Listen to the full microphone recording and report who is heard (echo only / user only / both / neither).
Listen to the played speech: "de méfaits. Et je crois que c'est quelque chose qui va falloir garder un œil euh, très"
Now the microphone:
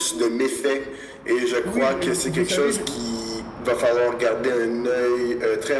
both